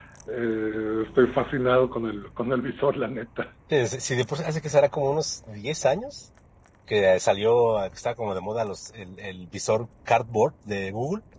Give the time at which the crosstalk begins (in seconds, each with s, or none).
none